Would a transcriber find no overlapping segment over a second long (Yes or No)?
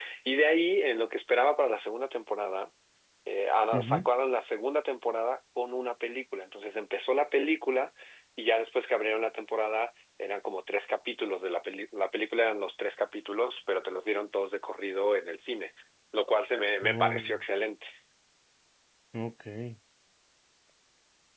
Yes